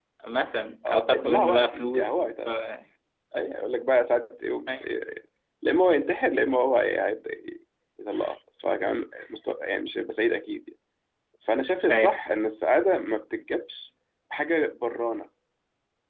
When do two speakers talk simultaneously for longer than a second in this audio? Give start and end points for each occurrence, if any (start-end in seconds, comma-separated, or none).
0.9-2.2